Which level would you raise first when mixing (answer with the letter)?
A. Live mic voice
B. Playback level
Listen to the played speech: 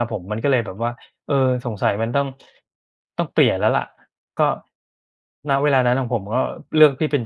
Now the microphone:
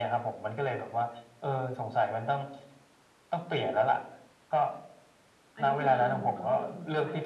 A